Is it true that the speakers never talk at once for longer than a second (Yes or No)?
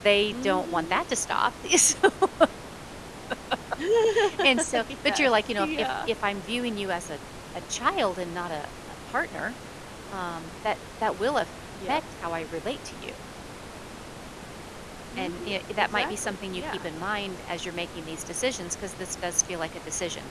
No